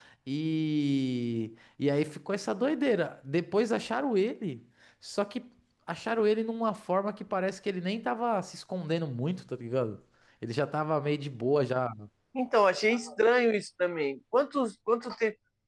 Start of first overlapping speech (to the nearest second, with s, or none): none